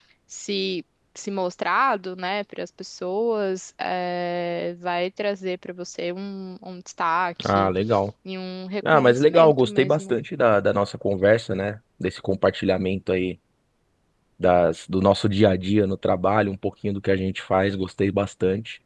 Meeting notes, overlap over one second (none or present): present